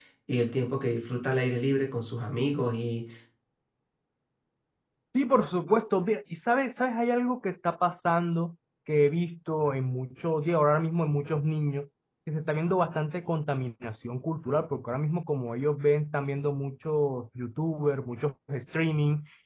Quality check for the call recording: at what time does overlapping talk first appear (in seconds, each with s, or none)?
none